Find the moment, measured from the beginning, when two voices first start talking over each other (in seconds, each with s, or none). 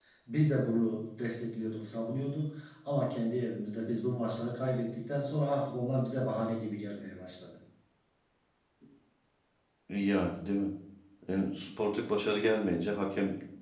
none